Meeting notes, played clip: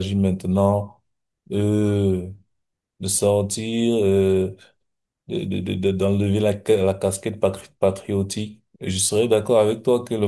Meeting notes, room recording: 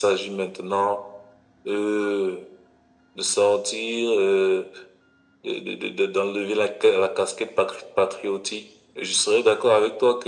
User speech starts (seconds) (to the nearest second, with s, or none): none